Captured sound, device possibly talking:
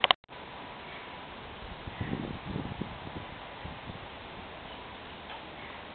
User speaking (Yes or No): No